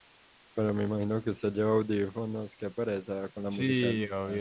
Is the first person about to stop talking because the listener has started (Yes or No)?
Yes